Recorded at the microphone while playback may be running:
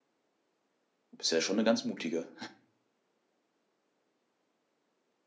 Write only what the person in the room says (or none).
du bist ja schon 'ne ganz mutige.